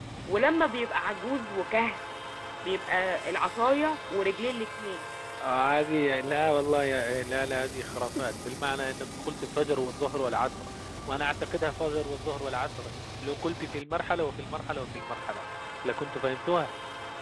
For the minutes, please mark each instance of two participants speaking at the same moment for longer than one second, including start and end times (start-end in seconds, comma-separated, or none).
none